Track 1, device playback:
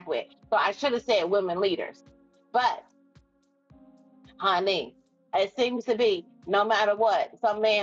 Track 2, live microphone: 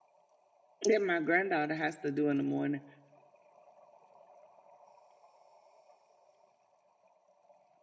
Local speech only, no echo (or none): That my granddaughter has to do in the morning.